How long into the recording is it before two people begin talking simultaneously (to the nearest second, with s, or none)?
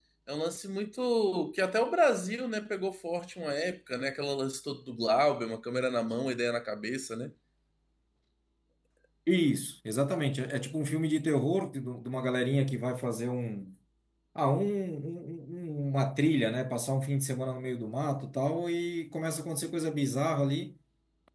none